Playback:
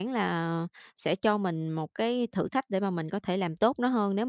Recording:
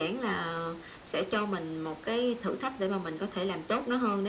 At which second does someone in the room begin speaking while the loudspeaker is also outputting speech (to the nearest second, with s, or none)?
none